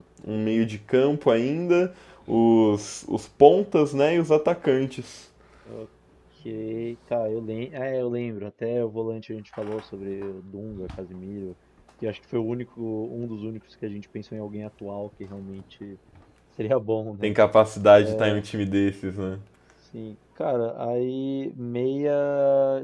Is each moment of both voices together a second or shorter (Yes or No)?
Yes